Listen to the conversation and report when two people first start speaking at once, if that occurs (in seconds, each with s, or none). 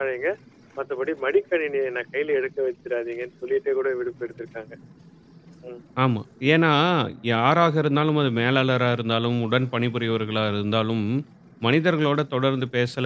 none